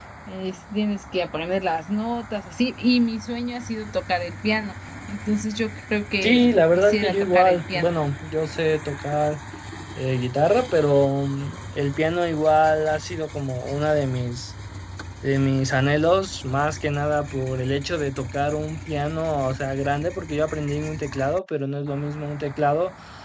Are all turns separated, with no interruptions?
No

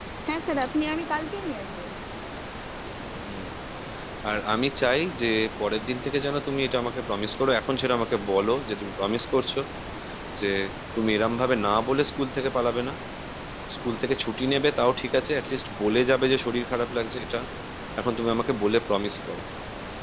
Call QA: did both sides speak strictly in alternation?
Yes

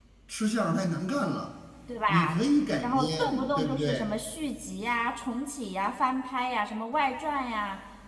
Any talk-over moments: Yes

